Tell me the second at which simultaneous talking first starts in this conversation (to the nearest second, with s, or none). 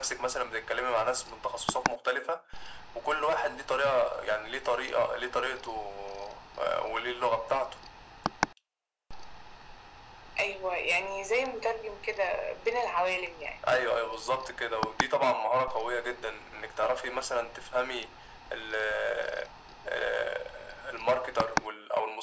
none